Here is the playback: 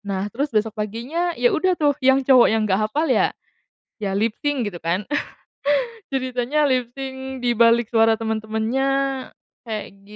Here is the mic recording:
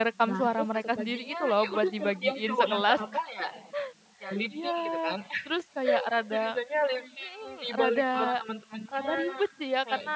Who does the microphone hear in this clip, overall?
both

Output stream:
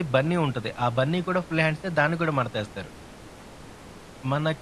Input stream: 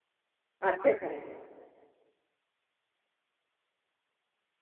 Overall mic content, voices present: user only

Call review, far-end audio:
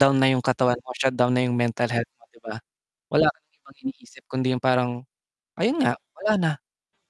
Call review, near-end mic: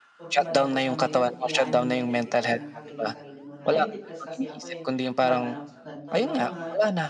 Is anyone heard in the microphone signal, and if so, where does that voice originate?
both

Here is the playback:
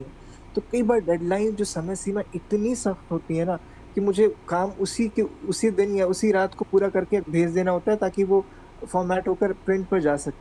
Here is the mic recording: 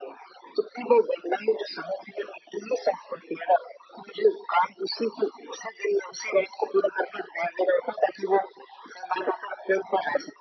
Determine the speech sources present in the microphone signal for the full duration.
echo only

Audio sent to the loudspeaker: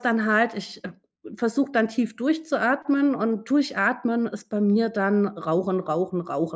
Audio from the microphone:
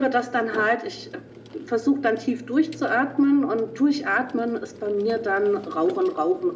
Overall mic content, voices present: echo only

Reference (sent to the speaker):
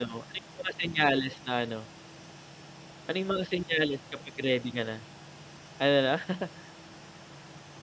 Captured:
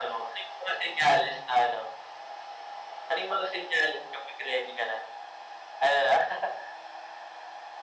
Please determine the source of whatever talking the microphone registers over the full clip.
echo only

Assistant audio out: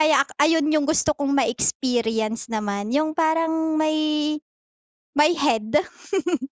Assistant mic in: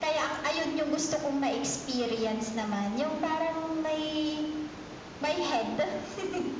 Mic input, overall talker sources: echo only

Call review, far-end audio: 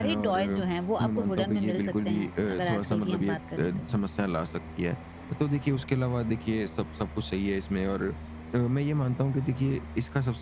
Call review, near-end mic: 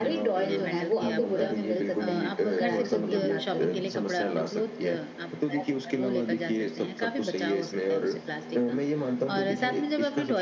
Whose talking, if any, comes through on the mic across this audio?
both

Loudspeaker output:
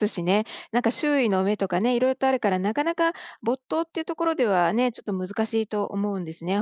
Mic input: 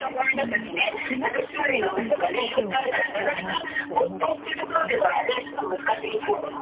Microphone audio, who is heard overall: both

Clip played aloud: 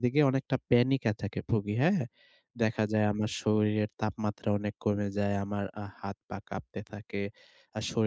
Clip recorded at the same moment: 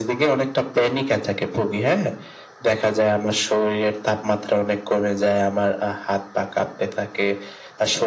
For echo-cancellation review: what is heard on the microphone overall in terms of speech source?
echo only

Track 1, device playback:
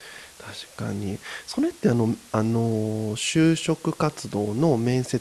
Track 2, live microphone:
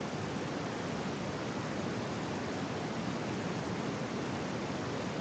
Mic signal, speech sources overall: neither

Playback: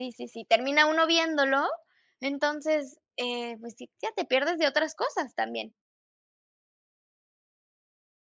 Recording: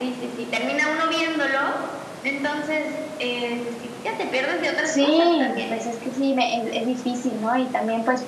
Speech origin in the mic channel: both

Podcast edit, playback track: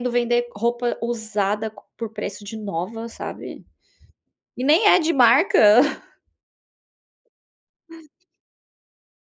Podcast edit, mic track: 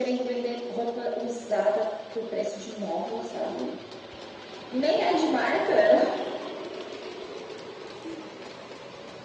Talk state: echo only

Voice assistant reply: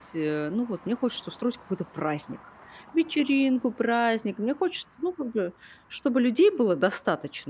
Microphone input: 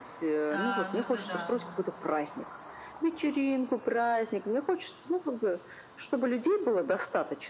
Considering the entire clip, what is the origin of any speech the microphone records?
both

